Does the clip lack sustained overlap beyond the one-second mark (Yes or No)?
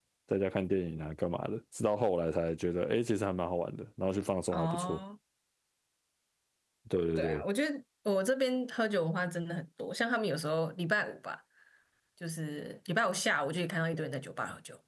Yes